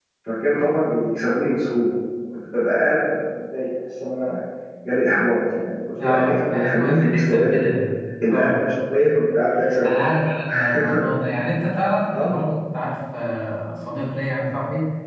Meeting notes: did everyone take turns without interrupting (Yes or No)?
No